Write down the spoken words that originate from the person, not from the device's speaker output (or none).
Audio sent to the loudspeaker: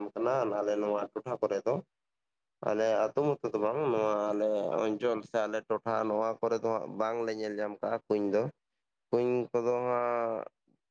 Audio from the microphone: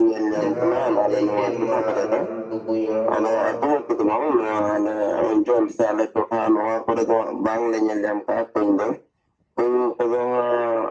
ᱡᱟᱦᱟᱸ ᱵᱤᱱ ᱞᱟᱹᱭ ᱠᱮᱫ ᱢᱟ ᱞᱟᱹᱴᱩ ᱞᱟᱹᱴᱩ ᱠᱩᱧ ᱚᱱᱟ ᱠᱚᱫᱚ ᱦᱟᱸᱜ